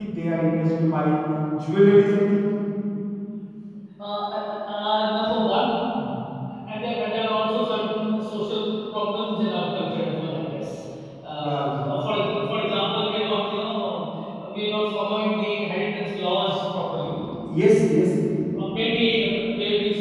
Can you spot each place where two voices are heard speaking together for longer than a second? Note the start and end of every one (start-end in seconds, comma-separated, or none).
none